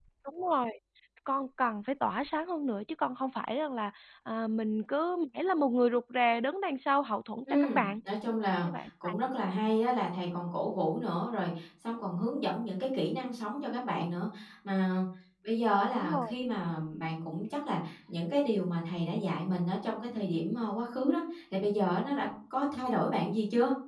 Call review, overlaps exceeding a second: none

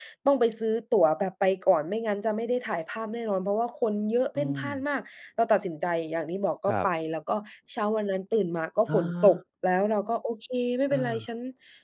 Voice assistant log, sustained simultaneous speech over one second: none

